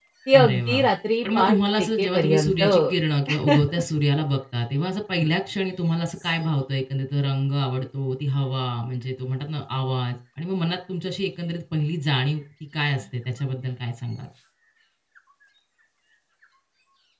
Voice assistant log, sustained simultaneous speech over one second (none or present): present